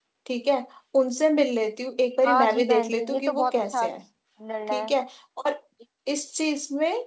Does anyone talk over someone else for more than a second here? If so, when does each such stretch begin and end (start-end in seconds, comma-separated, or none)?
2.2-3.9